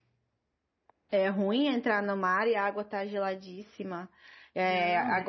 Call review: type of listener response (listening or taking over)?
listening